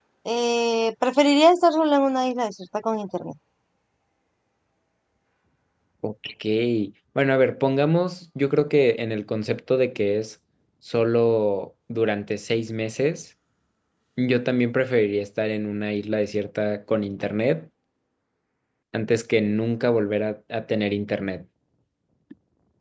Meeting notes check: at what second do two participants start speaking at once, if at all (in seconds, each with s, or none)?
none